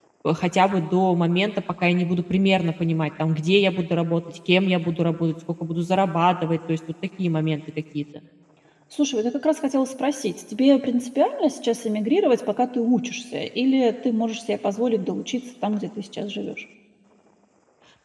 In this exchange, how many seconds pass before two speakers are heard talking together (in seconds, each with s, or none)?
none